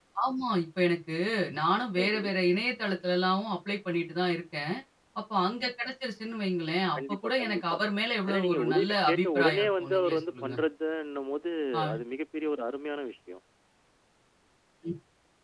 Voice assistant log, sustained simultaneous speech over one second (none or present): present